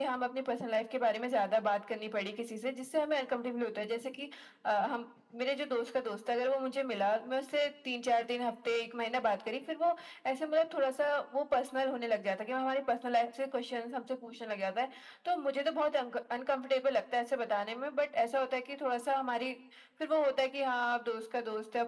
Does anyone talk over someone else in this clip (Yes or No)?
No